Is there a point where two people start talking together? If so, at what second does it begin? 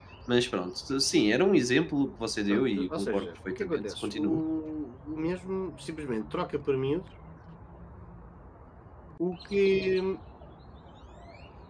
2.5 s

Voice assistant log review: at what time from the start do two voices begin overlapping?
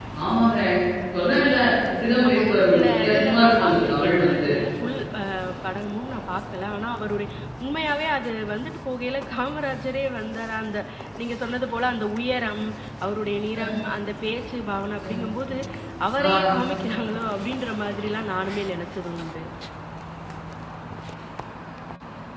2.3 s

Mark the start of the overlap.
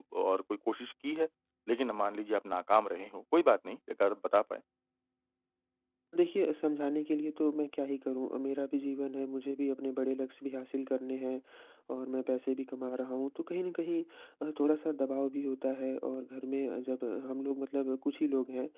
none

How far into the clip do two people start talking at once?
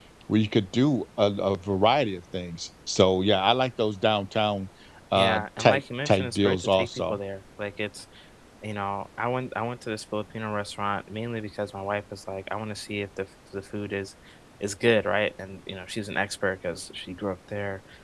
5.2 s

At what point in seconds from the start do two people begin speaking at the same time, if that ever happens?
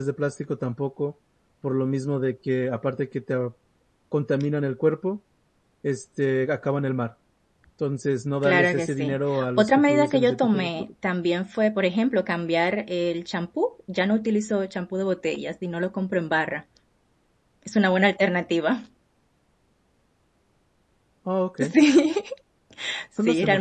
8.4 s

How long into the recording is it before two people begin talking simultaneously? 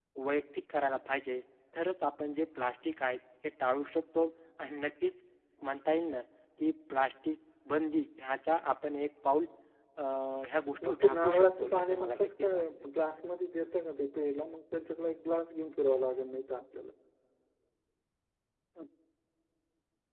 10.8 s

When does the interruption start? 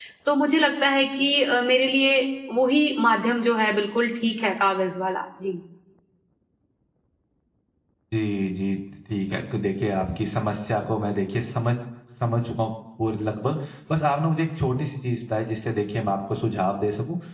none

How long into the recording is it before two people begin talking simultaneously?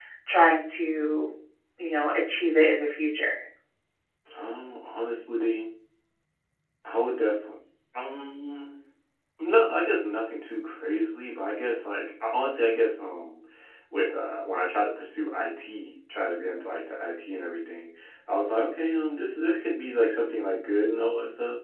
none

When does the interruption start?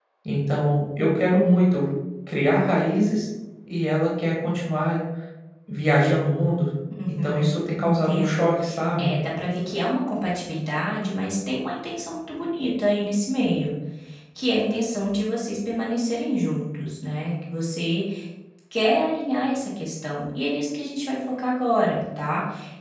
7.1 s

